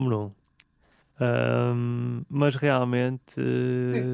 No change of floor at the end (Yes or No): No